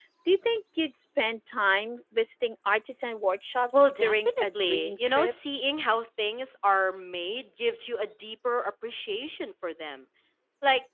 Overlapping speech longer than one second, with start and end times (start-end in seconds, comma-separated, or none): 3.7-5.3